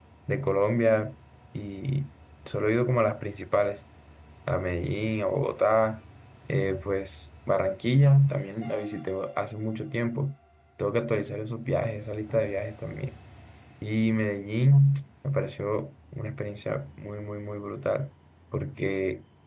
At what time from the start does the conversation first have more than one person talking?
none

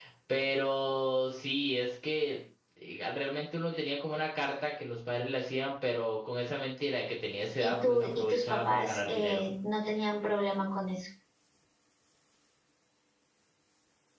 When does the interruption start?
7.6 s

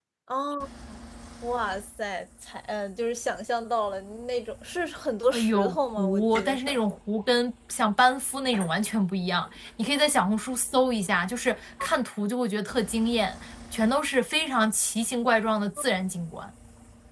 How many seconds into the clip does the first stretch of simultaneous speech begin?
5.3 s

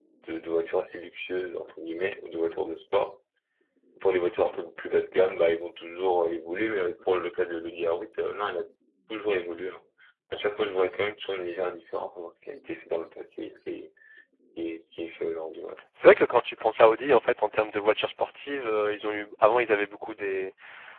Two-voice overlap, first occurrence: none

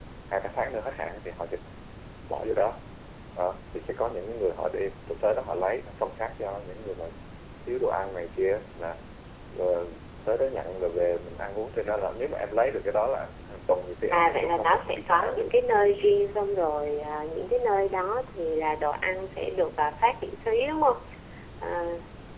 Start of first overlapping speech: 14.1 s

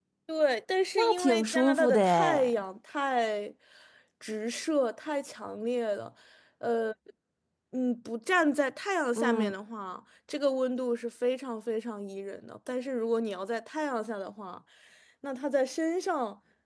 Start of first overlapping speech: 0.9 s

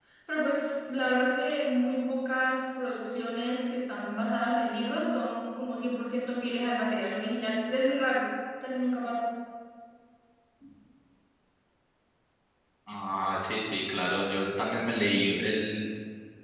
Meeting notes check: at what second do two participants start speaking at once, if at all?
none

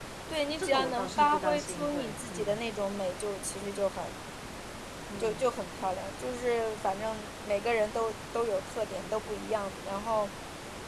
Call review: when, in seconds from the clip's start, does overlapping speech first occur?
0.6 s

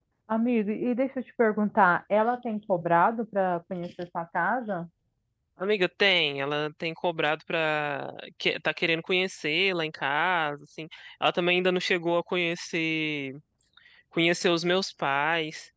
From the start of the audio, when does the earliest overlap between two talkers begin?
none

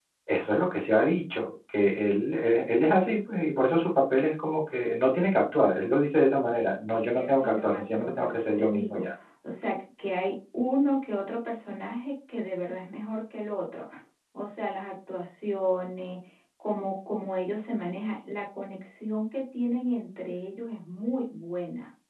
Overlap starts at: 6.9 s

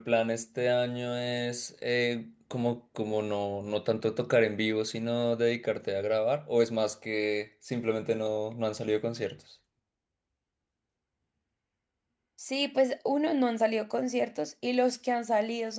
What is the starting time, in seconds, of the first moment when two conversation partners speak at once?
none

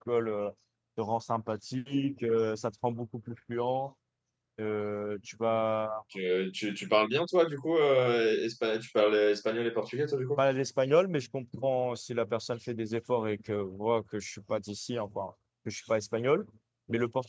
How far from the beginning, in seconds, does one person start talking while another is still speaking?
none

